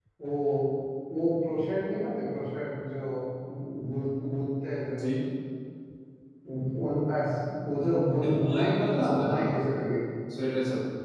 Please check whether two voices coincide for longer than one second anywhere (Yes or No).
Yes